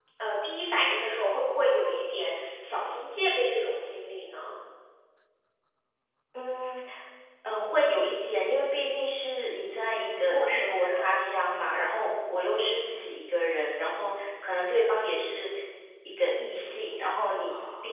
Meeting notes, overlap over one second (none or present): present